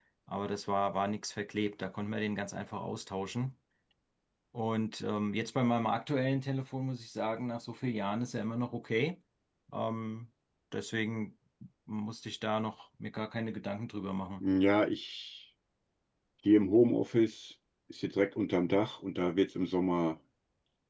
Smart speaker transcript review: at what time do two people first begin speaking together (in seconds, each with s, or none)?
none